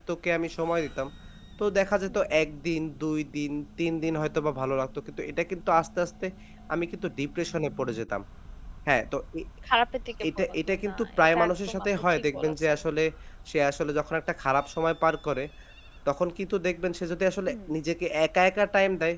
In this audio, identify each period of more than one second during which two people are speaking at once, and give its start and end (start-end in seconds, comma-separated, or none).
10.4-12.7